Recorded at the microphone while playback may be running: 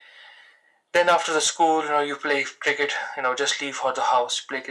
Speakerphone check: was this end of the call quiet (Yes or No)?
Yes